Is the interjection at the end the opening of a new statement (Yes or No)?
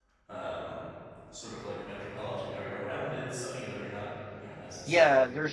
Yes